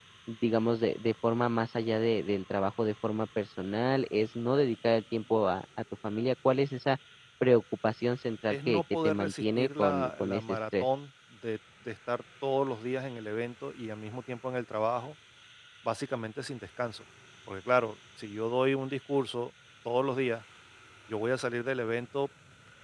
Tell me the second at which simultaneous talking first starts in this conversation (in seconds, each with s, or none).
8.5 s